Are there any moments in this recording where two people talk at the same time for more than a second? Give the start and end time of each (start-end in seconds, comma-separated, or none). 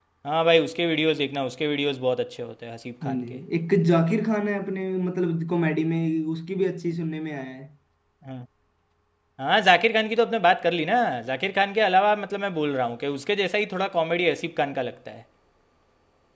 none